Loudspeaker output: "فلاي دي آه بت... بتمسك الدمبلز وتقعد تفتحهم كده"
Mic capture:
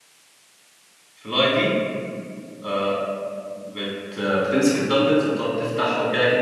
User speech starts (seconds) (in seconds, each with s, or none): none